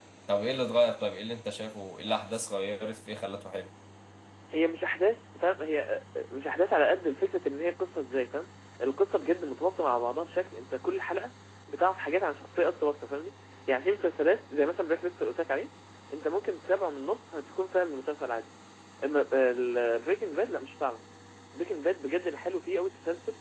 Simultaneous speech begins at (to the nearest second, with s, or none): none